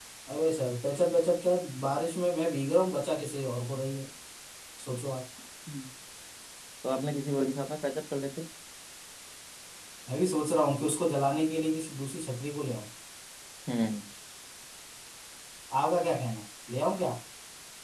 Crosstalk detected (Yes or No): No